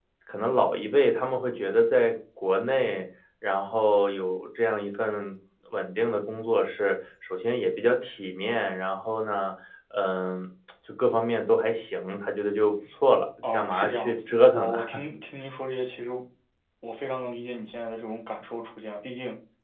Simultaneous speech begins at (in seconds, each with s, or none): 13.4 s